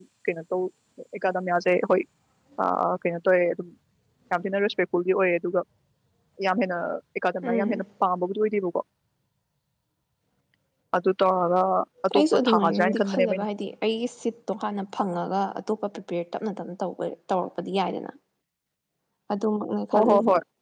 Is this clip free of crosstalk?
No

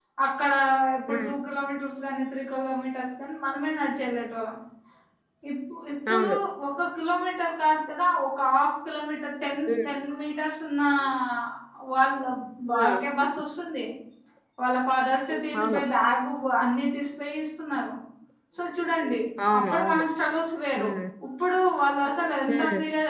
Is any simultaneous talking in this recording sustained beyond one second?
No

